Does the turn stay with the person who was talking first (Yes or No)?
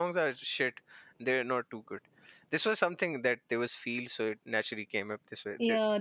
No